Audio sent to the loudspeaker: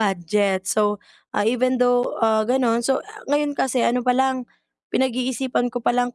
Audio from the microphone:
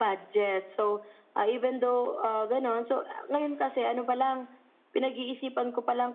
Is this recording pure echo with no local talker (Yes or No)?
Yes